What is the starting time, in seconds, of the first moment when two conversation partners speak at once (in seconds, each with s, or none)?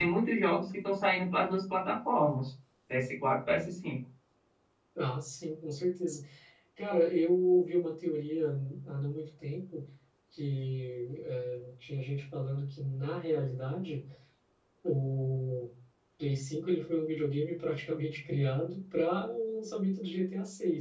none